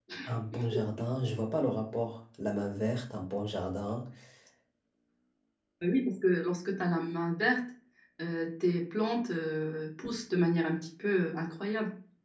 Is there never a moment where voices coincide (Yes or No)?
Yes